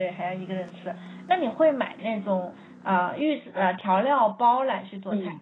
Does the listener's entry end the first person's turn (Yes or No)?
Yes